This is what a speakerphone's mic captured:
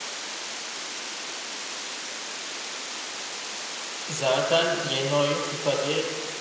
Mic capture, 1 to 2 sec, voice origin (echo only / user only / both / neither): neither